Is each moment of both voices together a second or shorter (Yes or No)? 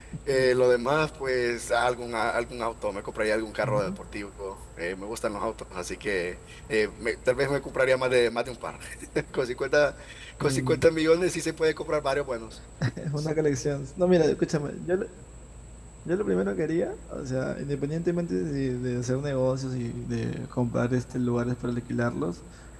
Yes